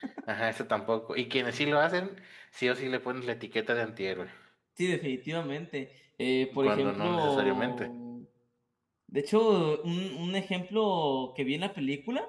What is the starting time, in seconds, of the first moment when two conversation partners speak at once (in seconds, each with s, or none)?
6.5 s